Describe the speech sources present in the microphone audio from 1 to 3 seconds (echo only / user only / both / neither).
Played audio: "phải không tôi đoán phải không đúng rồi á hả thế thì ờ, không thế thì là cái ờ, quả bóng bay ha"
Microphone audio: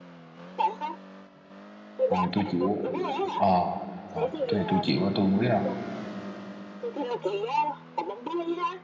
both